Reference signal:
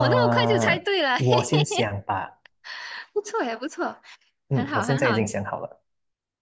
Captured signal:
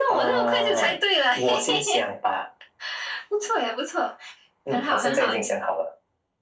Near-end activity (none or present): none